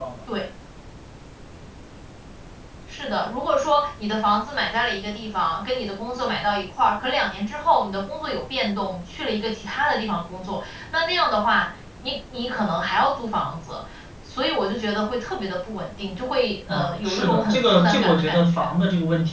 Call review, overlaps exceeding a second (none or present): present